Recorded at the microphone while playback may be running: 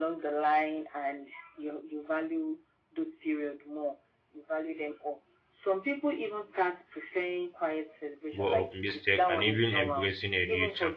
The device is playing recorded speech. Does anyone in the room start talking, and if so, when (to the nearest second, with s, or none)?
8 s